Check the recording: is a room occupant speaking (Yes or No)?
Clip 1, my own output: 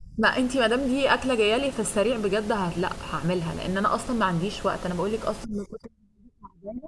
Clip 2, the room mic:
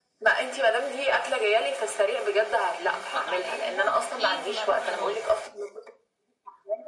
Yes